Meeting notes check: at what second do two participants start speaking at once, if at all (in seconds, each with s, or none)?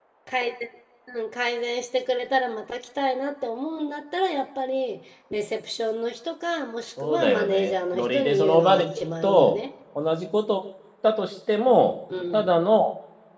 7.0 s